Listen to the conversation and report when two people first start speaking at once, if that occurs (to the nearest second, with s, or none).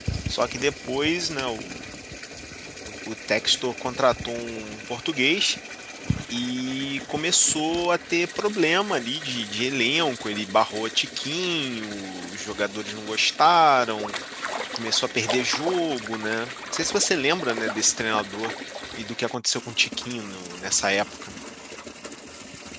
none